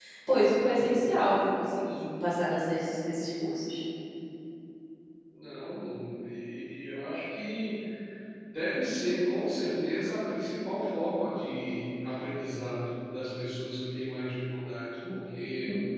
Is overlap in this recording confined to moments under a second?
Yes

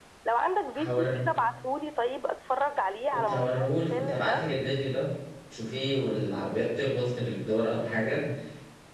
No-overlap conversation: No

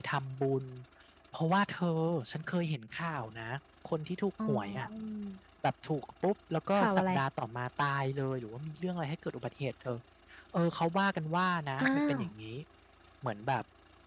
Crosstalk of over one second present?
No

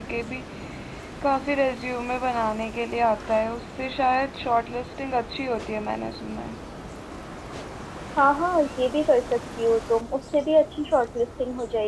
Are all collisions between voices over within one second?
Yes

